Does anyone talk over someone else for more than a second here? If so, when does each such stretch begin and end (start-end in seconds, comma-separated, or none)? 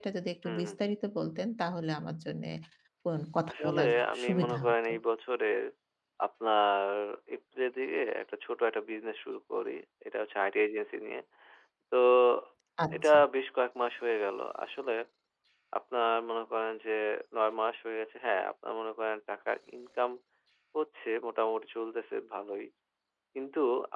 3.5-4.9